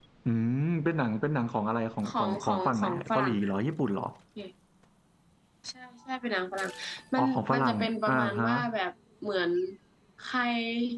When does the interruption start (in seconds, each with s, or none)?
2.1 s